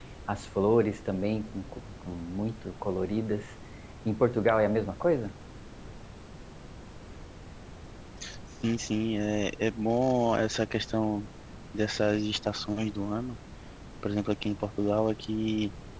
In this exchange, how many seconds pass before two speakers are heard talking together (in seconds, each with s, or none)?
none